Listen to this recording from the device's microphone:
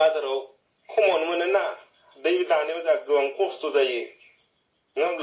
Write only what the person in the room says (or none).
none